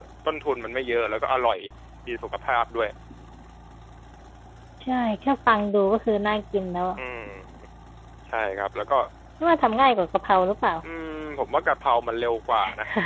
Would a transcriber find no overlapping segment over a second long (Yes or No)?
Yes